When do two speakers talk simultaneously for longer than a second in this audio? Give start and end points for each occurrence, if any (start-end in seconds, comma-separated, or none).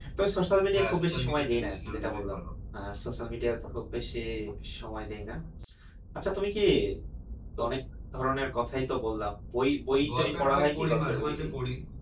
0.8-2.4, 10.2-11.5